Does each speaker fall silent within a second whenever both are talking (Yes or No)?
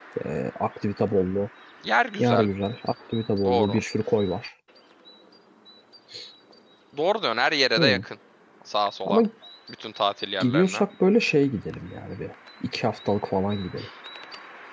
Yes